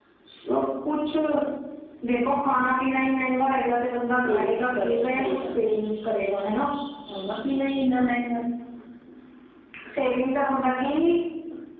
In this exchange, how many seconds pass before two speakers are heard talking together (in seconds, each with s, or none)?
4.2 s